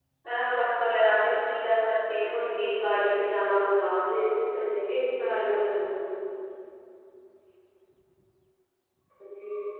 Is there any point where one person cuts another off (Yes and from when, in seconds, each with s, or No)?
Yes, from 2.2 s